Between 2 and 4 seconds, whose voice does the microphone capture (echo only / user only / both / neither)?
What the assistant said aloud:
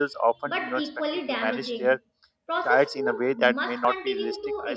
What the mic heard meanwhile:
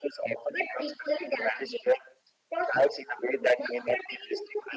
echo only